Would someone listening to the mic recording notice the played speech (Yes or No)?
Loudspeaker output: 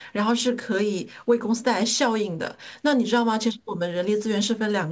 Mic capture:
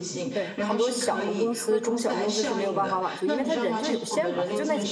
Yes